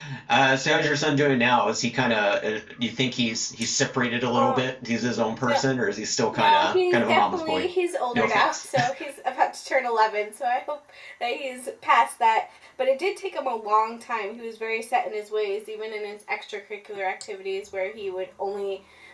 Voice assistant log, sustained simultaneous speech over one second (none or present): present